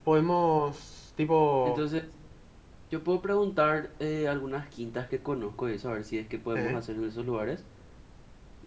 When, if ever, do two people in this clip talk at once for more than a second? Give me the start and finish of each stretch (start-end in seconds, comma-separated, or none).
none